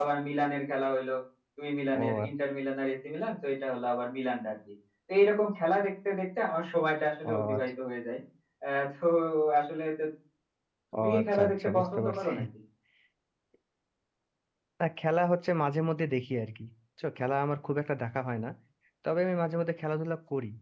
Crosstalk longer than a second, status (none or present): present